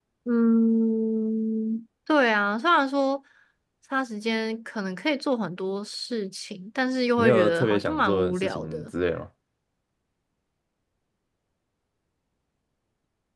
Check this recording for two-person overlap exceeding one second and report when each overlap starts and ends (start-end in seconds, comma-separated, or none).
7.2-8.9